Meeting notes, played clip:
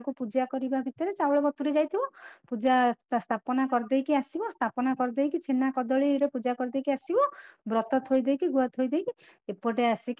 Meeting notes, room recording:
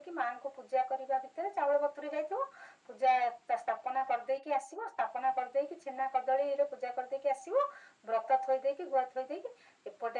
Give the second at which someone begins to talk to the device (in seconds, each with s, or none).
none